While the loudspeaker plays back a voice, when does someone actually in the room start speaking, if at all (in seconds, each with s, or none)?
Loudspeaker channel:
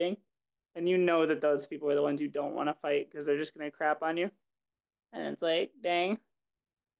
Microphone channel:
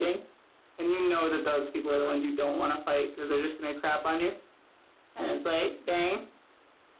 none